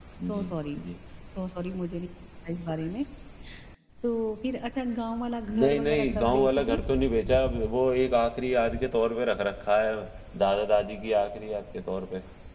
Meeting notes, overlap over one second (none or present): present